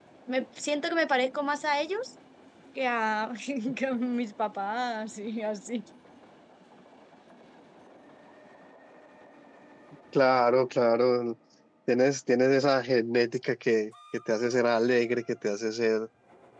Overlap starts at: none

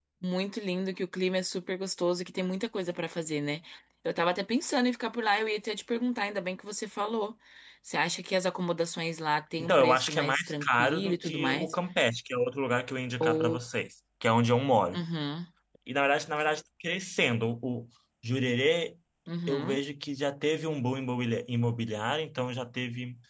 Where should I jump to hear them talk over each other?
9.6 s

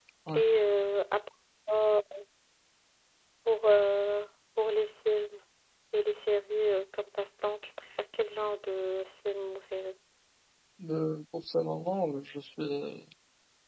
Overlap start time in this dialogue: none

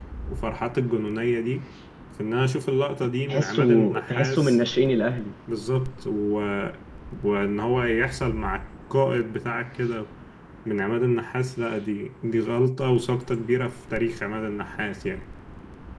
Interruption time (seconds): 3.3 s

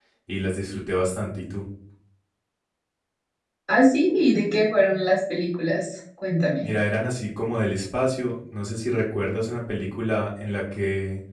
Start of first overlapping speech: none

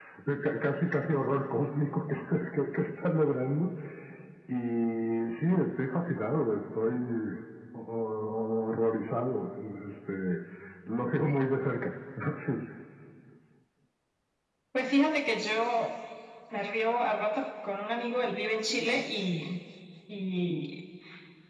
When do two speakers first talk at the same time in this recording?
none

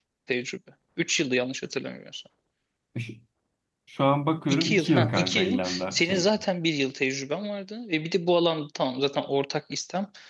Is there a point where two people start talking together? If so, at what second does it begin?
4.5 s

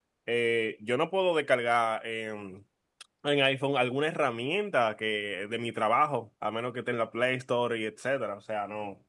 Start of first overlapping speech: none

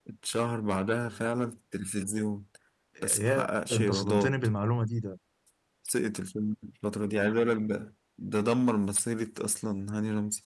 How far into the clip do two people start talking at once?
3.0 s

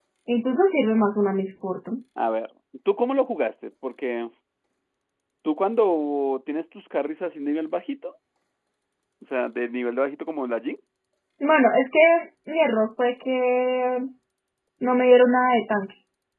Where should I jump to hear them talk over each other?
none

